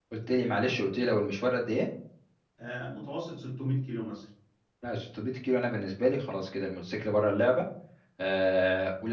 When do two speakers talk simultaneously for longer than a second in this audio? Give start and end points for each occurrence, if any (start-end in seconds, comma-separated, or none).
none